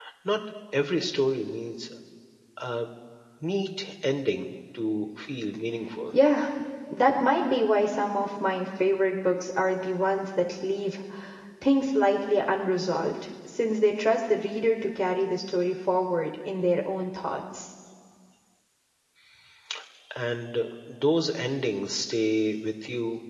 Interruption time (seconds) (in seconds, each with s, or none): none